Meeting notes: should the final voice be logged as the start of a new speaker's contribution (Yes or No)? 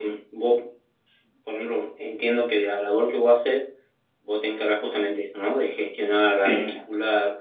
No